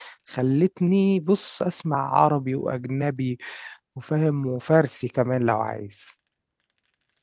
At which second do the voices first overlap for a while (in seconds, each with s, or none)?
none